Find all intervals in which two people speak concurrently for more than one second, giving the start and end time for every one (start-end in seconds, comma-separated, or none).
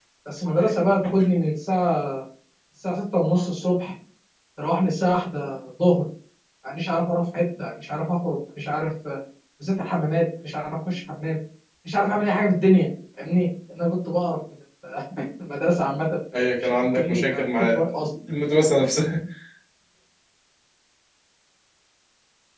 16.3-17.8